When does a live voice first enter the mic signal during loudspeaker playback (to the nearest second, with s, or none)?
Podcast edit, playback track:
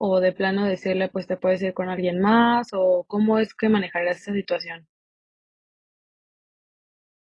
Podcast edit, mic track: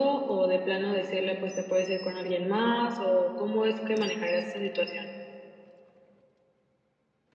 none